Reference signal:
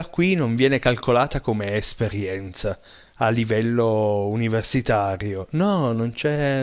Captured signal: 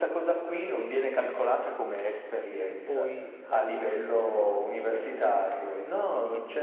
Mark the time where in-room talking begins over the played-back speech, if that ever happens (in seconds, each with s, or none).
2.6 s